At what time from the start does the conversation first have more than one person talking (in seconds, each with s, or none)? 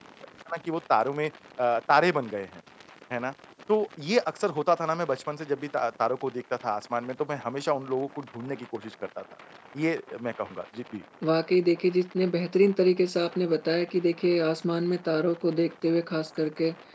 none